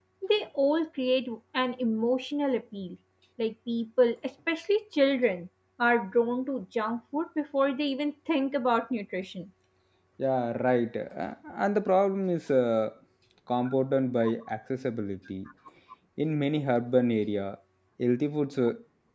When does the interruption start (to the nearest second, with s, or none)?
none